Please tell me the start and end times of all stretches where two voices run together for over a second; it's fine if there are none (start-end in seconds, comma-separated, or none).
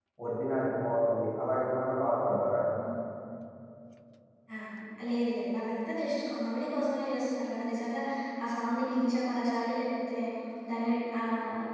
none